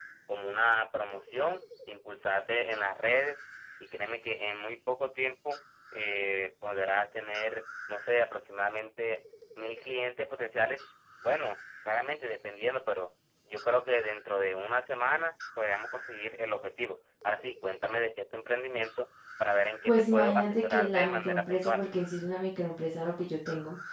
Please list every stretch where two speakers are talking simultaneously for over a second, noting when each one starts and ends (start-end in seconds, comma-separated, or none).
19.9-21.9